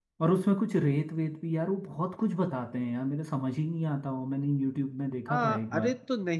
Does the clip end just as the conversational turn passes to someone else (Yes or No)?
Yes